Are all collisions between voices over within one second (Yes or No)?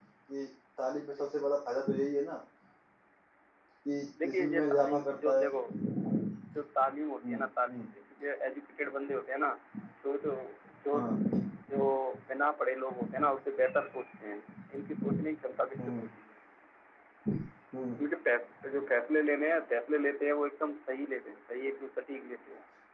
No